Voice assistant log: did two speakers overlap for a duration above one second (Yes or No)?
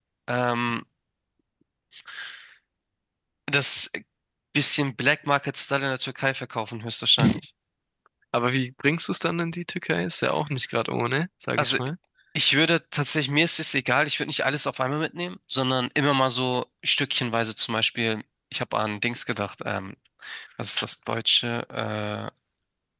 No